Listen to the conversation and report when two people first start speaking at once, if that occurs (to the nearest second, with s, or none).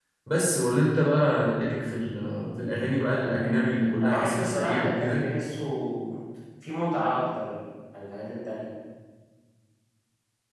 4 s